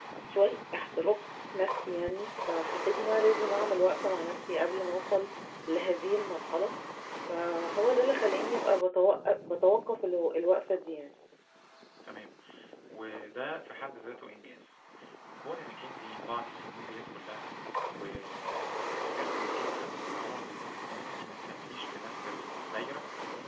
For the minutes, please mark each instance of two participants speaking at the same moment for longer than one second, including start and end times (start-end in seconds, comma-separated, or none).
none